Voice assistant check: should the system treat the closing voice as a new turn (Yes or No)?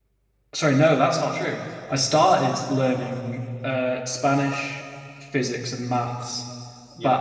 No